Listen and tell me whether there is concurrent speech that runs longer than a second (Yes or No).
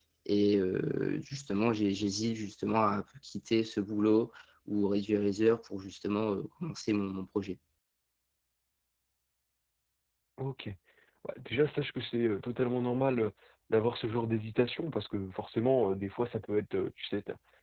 No